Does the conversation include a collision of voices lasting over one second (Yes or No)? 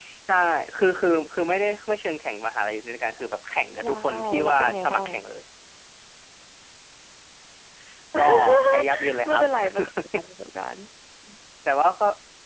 Yes